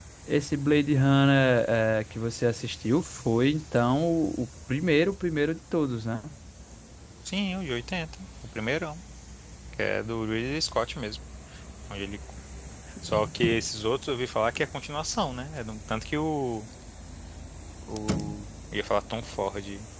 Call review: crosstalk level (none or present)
none